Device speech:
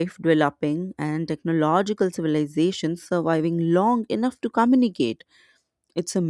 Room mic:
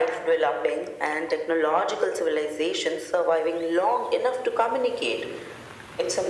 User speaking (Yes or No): No